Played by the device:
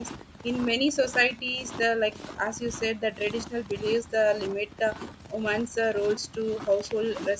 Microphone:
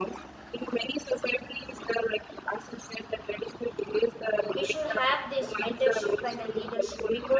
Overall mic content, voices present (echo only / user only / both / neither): both